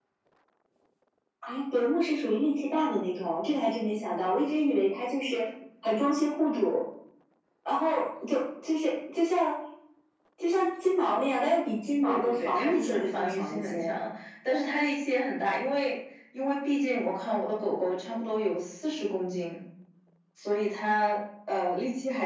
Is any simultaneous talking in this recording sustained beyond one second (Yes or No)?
Yes